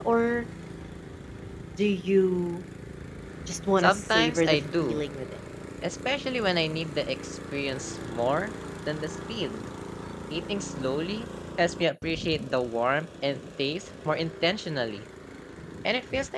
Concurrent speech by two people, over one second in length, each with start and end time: 3.8-5.0

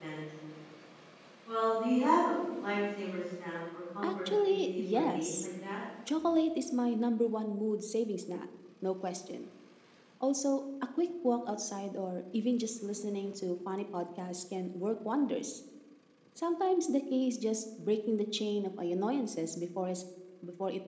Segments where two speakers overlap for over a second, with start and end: 4.0-5.3

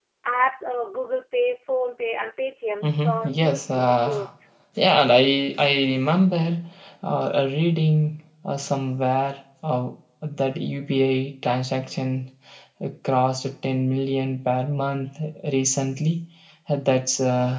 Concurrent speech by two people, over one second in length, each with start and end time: 2.8-4.3

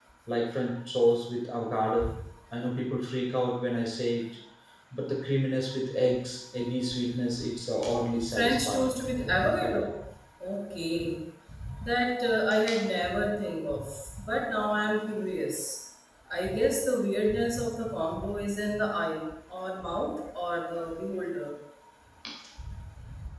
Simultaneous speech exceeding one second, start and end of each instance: 8.2-9.8

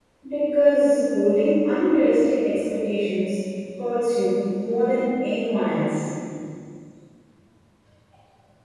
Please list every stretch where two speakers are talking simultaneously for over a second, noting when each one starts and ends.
none

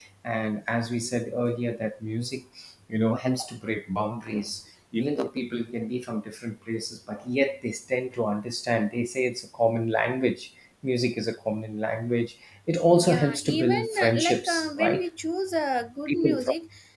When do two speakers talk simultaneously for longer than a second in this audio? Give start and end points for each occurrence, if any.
13.1-15.0

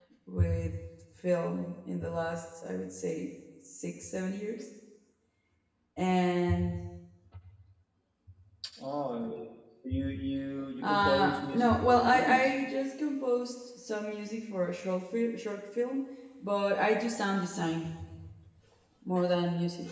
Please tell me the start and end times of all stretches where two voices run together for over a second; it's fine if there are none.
10.8-12.5

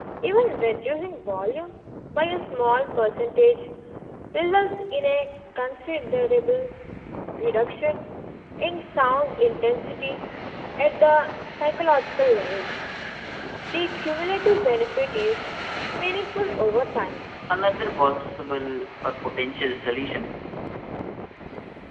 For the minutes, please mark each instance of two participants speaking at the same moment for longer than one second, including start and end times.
none

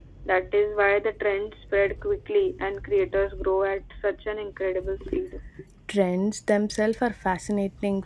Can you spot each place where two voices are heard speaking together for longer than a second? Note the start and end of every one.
none

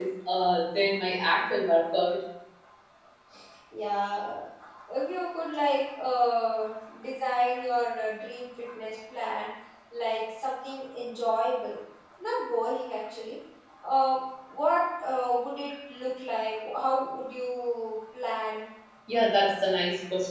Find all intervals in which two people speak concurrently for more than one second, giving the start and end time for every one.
none

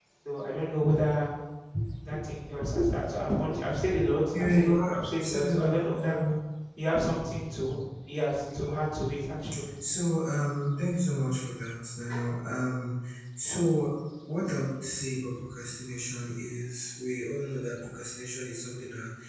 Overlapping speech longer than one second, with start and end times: 4.3-6.2

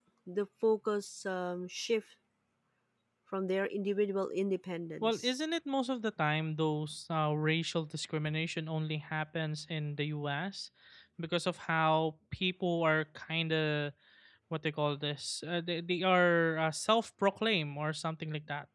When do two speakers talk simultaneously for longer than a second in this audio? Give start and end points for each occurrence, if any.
none

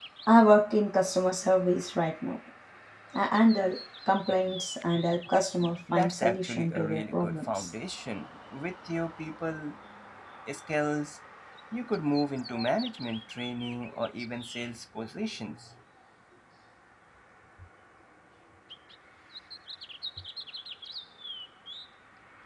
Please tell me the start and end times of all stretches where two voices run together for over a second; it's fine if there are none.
5.9-7.7

